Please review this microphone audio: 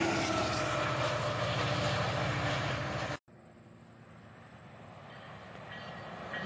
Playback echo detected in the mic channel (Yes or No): No